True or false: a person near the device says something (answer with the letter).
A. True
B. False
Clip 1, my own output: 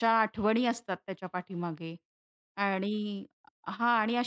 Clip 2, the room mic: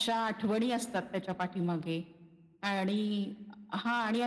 B